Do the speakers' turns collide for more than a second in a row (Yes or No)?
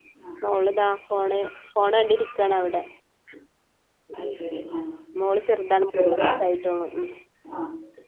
No